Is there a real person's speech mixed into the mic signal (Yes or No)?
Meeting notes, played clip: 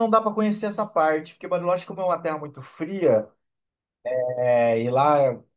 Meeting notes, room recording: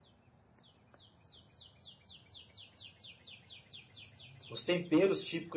Yes